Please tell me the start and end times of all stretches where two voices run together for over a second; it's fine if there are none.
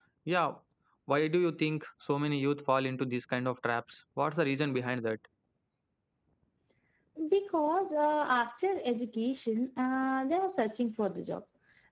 none

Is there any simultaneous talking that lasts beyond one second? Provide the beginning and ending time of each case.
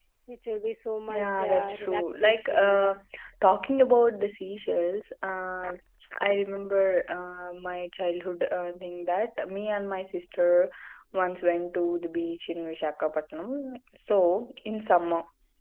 1.1-3.0

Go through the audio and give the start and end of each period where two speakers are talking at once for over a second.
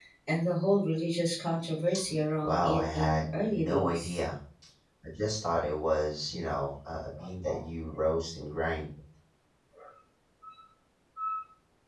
2.4-4.2

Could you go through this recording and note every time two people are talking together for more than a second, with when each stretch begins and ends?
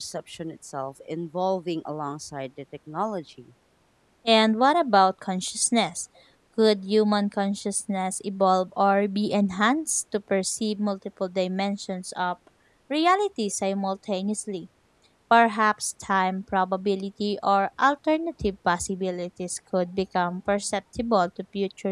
none

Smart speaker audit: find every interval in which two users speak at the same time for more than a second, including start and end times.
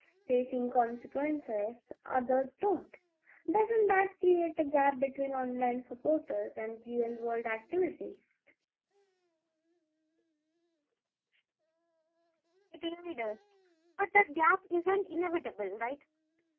none

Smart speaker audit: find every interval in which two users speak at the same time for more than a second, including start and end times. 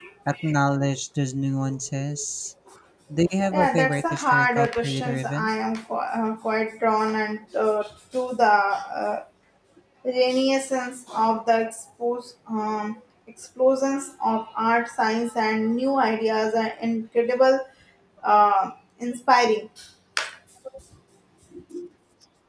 3.5-5.5

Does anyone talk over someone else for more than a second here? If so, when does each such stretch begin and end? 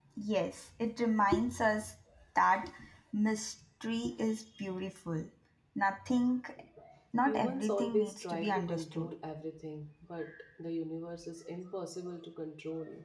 7.2-9.1

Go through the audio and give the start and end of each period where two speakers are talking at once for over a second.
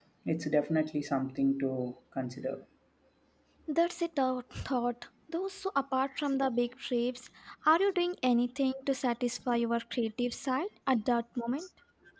none

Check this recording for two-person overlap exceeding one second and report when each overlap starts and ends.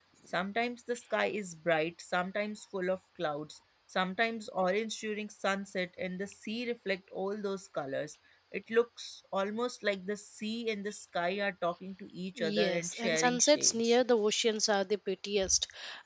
12.4-14.0

